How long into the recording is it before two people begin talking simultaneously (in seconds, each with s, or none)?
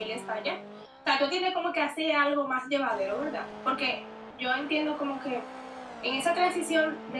none